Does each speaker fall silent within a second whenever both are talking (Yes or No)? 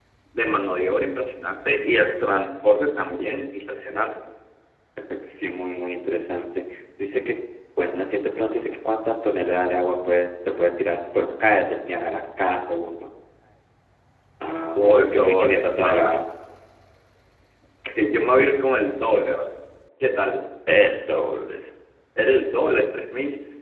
No